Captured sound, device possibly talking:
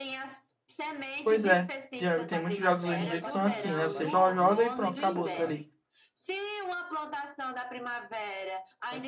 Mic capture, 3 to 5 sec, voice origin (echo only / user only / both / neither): both